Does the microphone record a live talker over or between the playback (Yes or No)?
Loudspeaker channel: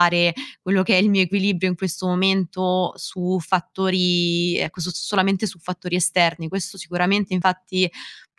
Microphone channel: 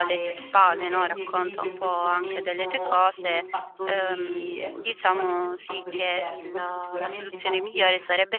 Yes